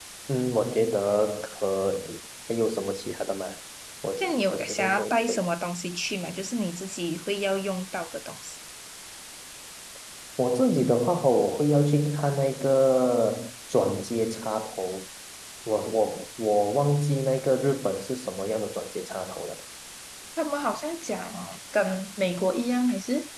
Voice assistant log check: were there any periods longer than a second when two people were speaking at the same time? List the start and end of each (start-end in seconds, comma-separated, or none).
4.2-5.4